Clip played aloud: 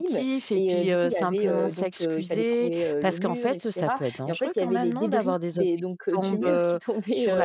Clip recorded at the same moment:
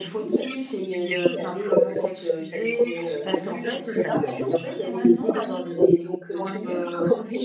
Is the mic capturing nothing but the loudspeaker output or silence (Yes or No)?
Yes